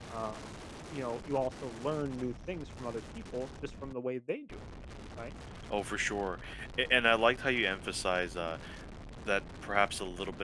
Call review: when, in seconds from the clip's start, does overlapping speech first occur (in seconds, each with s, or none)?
none